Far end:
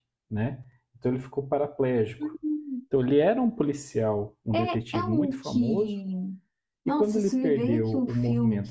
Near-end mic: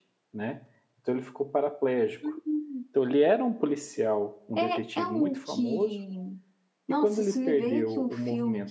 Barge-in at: none

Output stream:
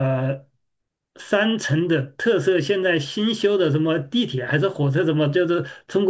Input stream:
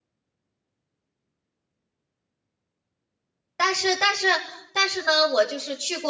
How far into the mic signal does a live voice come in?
3.5 s

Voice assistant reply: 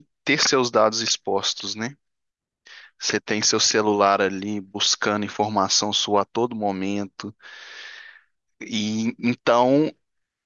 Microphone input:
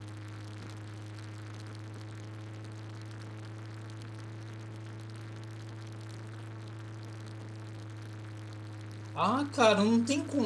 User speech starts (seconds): 9.1 s

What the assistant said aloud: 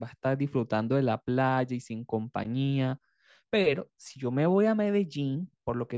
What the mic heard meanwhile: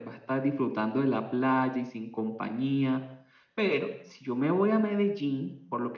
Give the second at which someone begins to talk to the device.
none

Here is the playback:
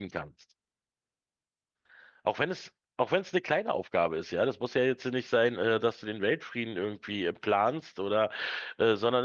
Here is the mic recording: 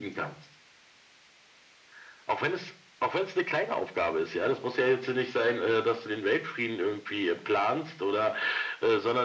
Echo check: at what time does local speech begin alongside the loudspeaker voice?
none

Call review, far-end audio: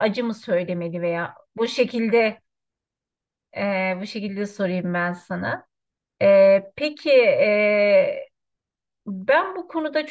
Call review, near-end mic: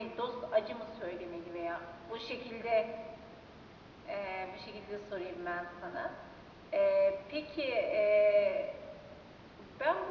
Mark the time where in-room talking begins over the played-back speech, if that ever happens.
none

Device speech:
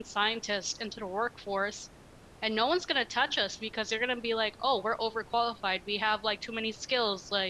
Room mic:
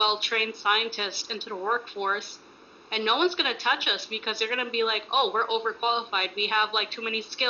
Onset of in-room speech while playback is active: none

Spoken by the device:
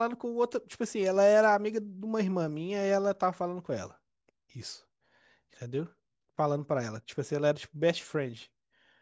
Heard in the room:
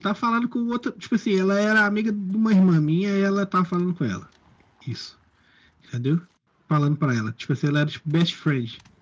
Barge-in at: none

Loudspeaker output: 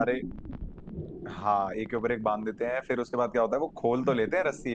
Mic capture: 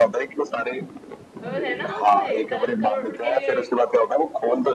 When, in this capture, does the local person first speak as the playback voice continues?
1.4 s

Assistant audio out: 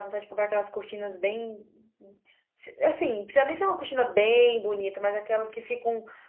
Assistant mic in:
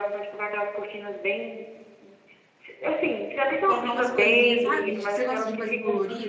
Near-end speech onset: 3.7 s

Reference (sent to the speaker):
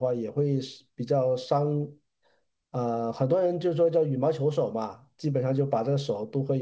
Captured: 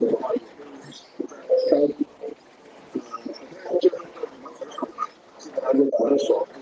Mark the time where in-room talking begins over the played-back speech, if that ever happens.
none

